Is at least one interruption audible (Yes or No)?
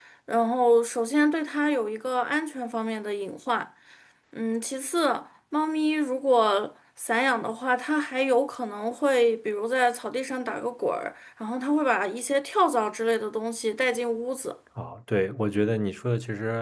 No